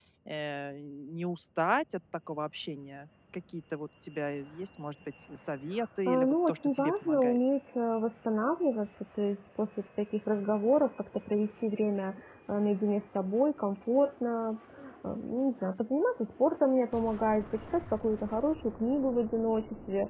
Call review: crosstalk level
present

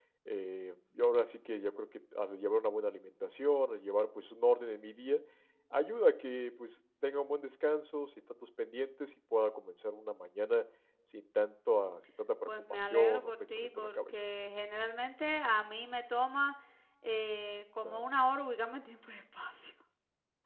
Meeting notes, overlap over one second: present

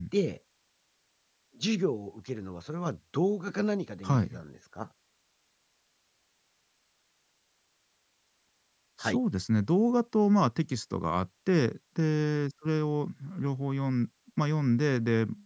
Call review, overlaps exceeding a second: none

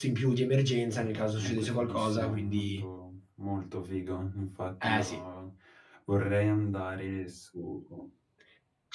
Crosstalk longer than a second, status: present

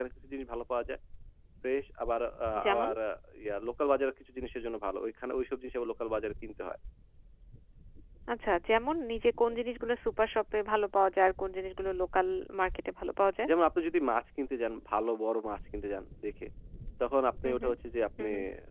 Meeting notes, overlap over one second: none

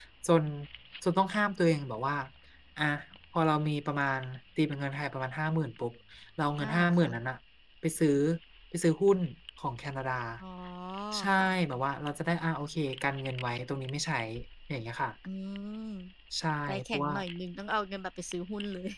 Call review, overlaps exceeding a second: none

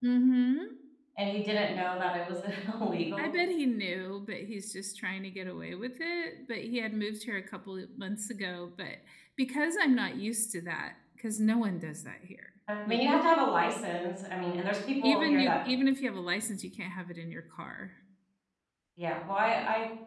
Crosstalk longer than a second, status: none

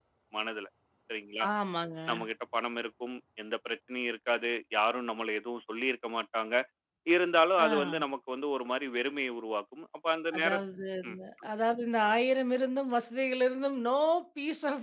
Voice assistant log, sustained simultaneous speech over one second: none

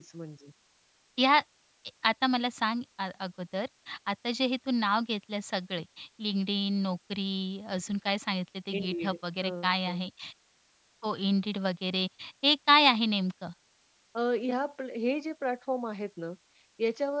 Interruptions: present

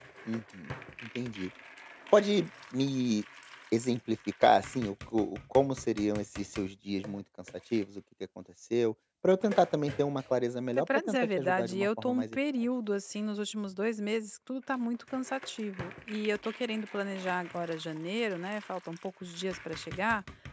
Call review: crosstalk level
present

